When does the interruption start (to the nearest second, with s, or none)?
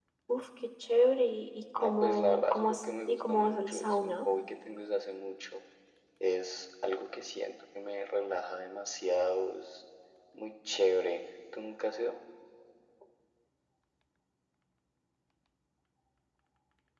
2 s